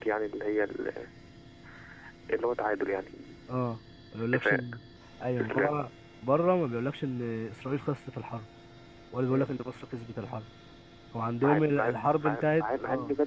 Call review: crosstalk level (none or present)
present